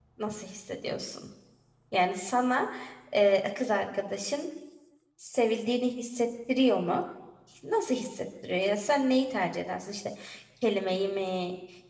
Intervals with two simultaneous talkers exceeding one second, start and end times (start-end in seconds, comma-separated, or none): none